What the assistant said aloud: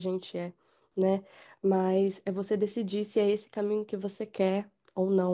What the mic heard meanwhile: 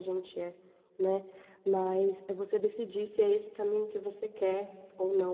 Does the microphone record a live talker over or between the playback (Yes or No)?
No